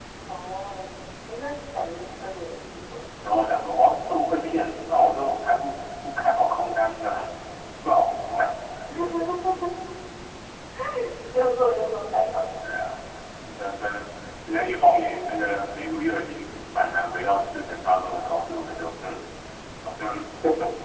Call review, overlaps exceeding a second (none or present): none